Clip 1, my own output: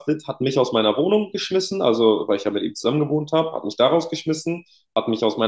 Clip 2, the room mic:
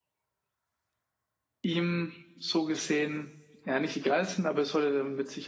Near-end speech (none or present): present